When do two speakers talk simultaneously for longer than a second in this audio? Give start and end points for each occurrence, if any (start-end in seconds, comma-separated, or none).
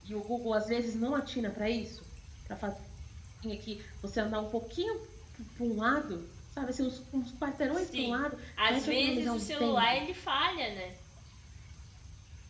8.7-10.0